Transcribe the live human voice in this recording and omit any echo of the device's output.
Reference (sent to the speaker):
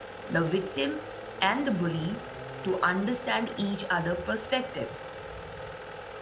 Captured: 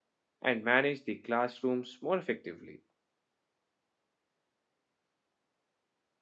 and manage the classrooms more effectively

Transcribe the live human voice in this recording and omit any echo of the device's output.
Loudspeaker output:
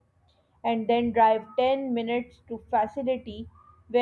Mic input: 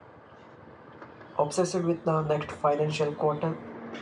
obsessed with the next financial quarter,

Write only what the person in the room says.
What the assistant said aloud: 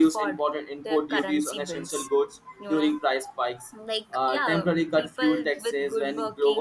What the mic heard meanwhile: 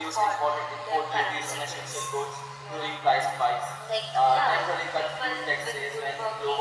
none

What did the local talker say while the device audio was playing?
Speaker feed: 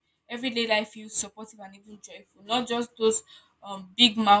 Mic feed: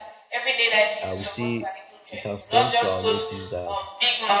I would say it has come to our notice that

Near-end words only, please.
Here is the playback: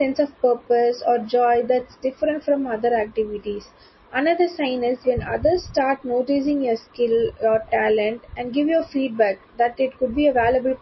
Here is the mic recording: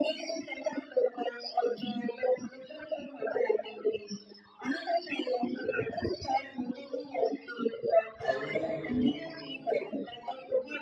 how do you

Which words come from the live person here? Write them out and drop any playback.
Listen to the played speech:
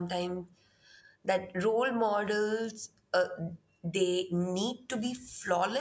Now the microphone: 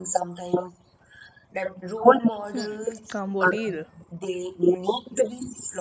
Hmm, combo deal.

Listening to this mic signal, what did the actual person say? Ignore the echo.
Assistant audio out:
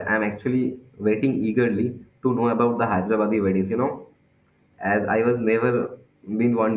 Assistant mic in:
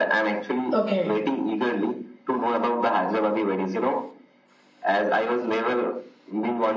Okay.

